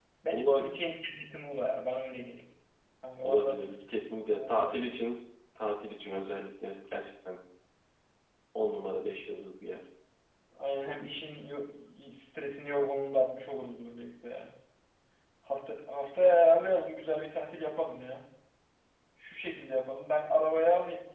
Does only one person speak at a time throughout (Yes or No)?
No